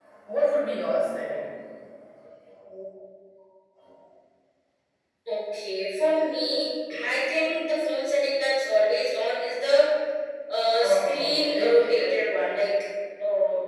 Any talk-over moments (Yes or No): Yes